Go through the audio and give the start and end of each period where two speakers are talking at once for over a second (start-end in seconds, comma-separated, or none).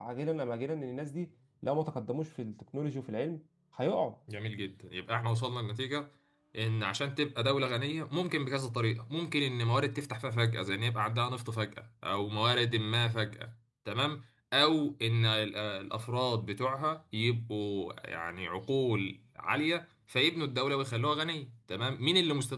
none